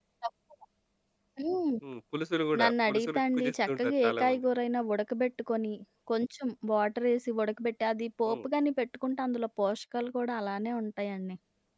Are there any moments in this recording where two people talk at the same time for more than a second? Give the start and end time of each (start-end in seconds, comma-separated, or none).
2.6-4.4